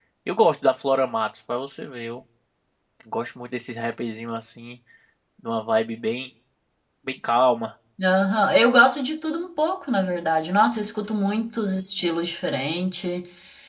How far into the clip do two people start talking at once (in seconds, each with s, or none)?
none